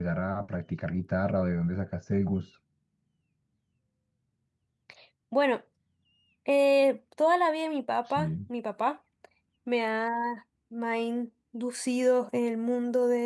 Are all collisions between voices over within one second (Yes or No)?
Yes